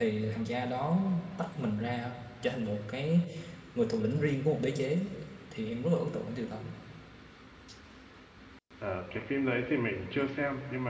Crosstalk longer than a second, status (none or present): none